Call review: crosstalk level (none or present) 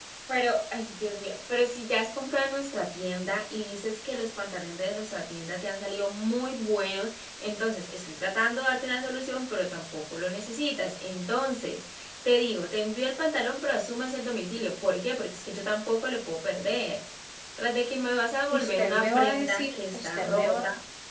present